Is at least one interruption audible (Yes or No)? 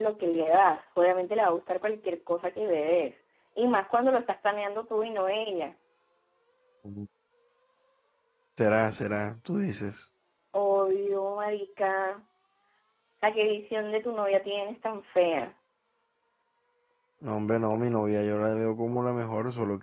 No